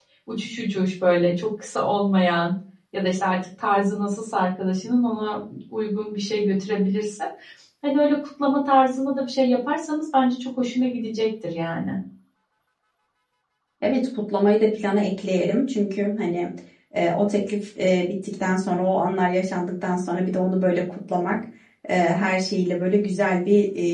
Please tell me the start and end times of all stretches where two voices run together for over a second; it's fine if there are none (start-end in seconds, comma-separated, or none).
none